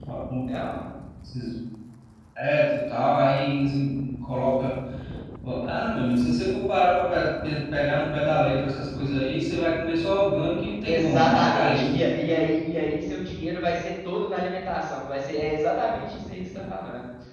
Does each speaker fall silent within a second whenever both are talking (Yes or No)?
No